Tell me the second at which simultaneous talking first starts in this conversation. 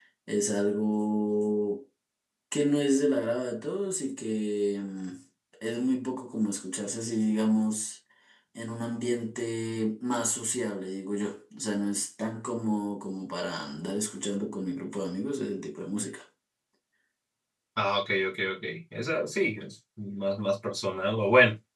none

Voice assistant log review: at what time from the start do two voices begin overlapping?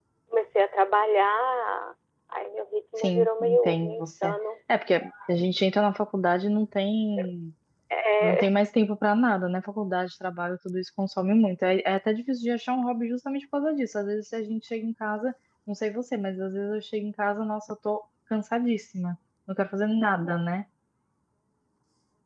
3.0 s

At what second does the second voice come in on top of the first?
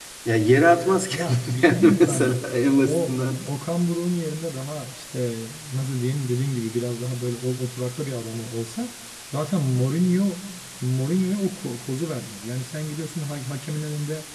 1.1 s

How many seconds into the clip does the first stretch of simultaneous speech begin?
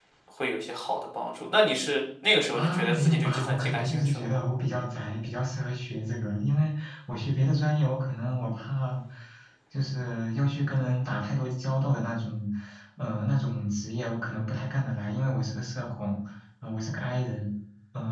2.5 s

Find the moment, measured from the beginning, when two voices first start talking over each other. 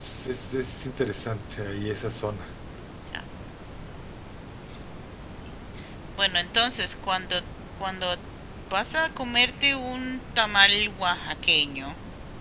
none

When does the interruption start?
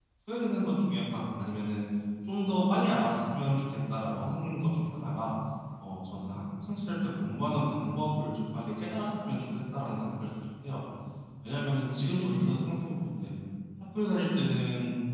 none

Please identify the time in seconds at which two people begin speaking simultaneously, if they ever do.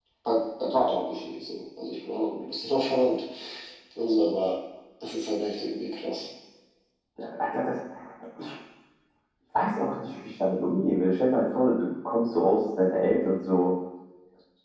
none

